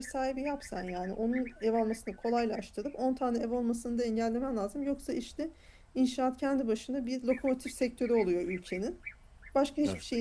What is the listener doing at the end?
listening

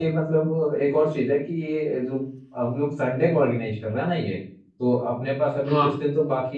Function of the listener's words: listening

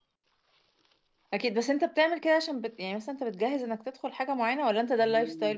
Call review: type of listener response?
taking over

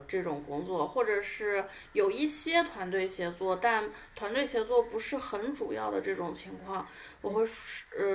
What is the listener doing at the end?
listening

